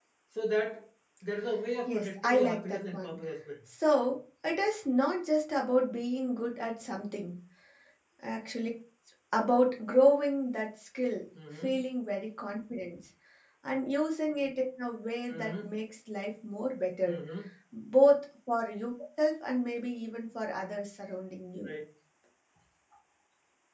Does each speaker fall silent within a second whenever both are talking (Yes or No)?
No